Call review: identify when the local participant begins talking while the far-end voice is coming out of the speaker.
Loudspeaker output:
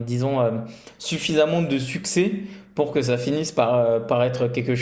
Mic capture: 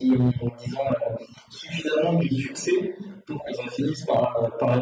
none

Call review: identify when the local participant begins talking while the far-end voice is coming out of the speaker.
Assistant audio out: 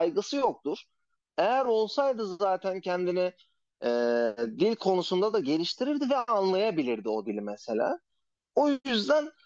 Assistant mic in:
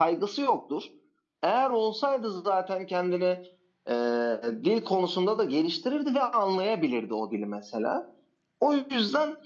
none

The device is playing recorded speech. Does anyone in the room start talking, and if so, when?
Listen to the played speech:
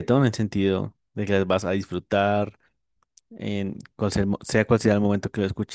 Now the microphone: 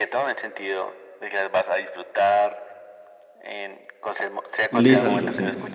4.7 s

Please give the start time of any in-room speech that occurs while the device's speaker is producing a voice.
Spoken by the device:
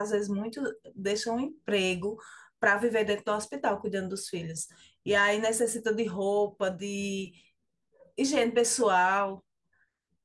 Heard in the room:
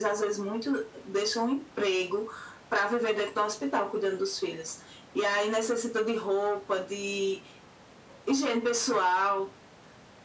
none

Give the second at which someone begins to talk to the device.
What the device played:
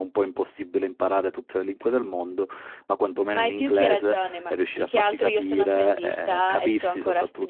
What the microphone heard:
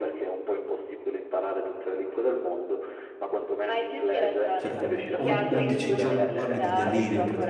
4.5 s

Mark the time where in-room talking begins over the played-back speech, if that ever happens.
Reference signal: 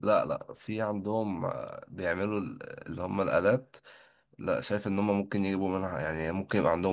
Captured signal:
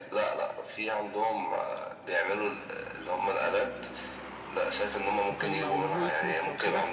5.3 s

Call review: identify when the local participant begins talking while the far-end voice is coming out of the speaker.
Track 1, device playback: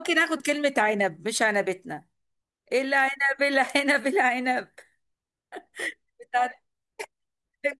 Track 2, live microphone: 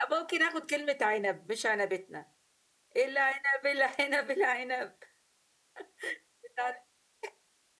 none

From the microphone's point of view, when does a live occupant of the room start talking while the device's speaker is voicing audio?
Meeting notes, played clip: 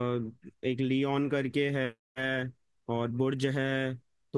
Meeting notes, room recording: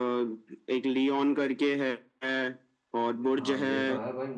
3.4 s

